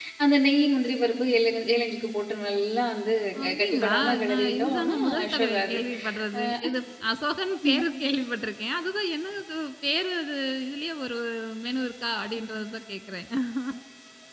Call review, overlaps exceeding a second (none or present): present